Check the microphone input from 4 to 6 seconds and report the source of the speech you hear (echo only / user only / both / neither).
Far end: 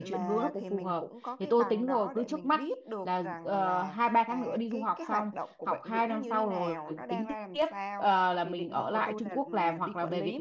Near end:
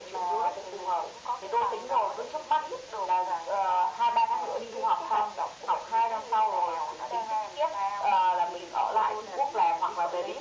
echo only